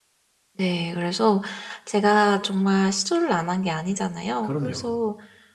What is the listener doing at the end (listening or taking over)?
listening